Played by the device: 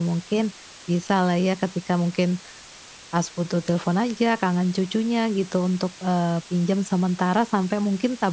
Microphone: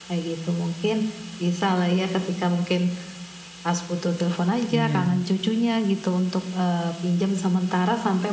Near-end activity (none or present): present